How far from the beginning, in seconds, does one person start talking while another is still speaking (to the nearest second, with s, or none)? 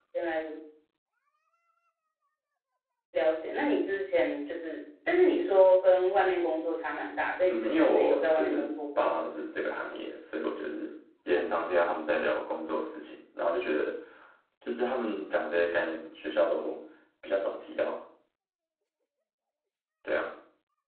7 s